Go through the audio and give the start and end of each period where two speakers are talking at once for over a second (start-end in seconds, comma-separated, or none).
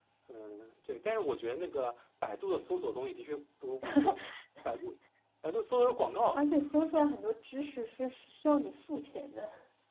none